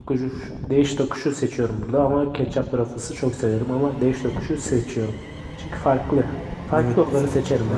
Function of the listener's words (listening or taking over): taking over